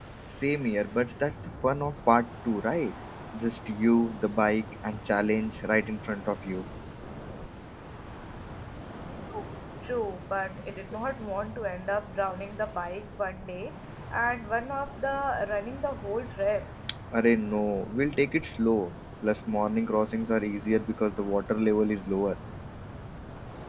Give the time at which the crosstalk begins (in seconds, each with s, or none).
none